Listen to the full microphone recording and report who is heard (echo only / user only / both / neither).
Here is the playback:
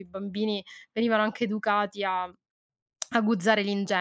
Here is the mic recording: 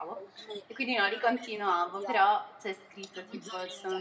both